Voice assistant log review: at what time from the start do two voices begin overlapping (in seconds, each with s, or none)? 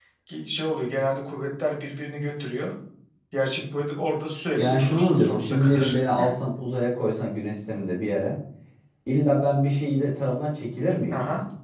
4.5 s